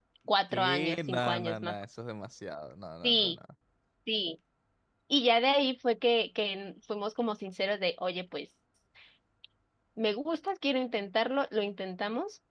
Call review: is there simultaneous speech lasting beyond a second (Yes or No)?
Yes